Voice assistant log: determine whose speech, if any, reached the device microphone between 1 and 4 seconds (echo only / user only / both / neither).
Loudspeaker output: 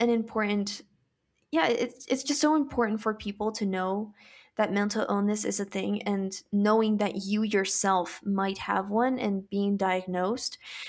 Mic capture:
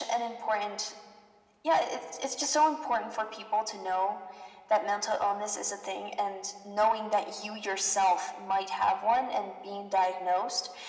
echo only